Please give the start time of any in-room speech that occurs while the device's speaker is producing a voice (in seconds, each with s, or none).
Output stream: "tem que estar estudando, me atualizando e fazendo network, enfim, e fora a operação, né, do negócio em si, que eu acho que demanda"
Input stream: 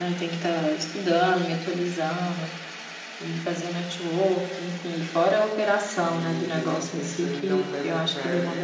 5.9 s